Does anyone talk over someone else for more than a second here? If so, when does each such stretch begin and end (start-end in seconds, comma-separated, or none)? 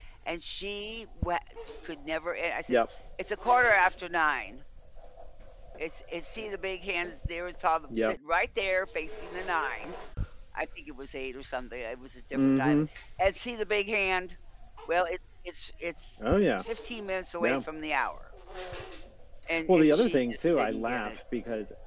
19.7-21.1